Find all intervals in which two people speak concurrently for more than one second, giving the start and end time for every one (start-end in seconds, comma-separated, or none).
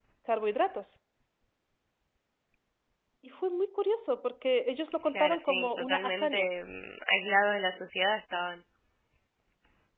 5.1-6.5